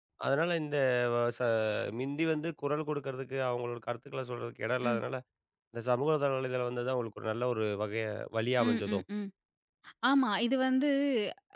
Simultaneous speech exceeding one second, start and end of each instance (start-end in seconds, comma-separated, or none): none